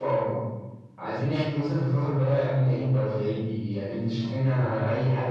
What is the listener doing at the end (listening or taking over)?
listening